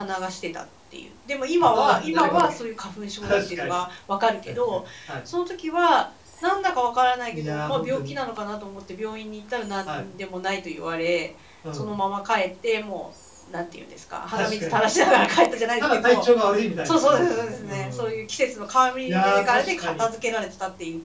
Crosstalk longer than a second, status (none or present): present